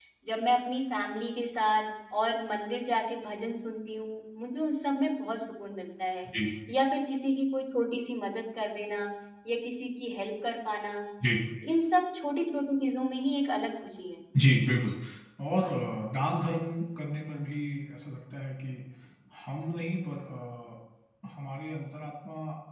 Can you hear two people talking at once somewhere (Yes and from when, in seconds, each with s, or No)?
No